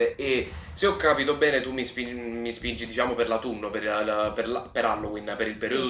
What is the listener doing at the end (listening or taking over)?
taking over